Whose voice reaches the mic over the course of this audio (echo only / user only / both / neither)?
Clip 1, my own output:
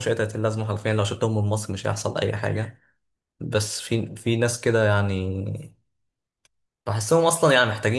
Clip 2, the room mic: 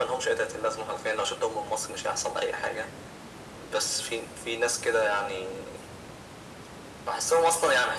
echo only